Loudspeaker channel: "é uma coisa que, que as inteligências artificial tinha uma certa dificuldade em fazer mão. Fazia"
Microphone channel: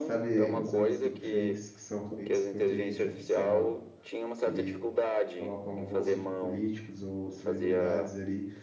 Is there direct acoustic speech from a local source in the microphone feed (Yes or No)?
Yes